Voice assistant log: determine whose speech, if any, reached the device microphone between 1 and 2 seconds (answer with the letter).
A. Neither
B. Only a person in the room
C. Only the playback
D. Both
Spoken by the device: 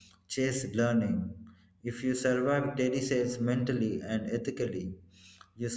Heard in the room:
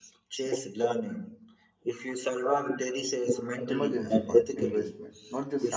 C